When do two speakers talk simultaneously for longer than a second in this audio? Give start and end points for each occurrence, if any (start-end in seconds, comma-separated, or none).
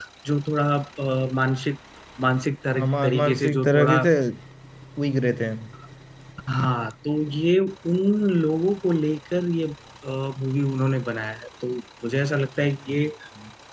2.7-4.0